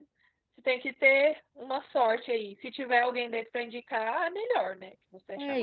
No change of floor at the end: No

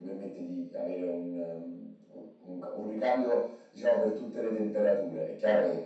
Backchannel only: Yes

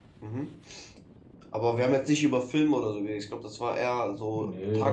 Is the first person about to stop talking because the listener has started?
Yes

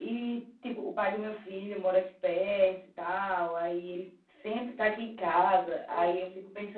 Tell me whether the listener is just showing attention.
Yes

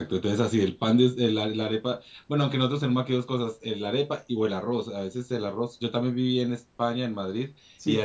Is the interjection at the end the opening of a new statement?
No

